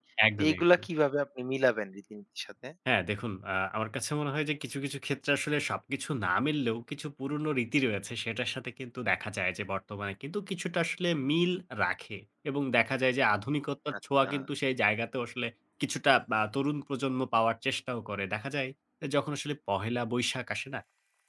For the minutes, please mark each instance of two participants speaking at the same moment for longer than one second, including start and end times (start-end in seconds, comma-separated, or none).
none